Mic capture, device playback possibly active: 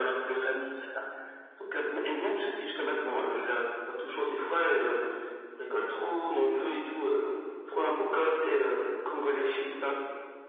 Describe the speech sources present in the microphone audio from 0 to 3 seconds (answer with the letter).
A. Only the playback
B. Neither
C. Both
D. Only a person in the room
A